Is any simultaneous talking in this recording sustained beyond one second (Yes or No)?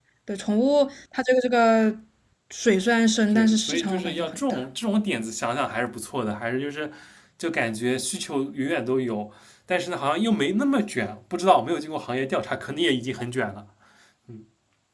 Yes